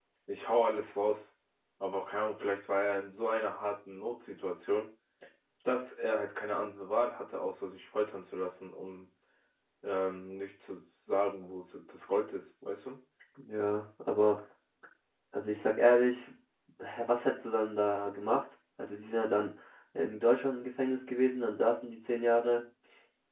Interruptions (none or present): none